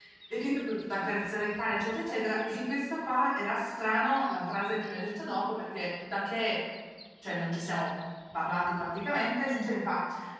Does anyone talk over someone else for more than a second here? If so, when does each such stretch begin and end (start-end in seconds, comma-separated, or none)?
none